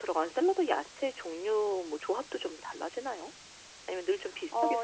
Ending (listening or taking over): taking over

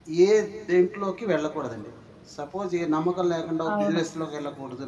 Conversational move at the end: listening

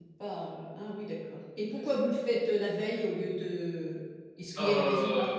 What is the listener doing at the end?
taking over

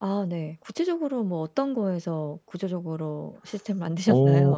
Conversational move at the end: taking over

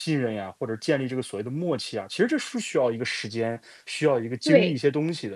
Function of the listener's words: listening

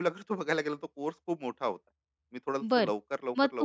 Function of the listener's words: taking over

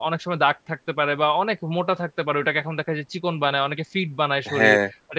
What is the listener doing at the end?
taking over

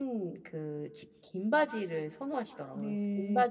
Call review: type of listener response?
taking over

